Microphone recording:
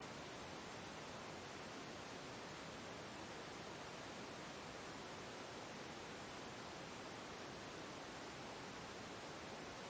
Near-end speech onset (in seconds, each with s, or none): none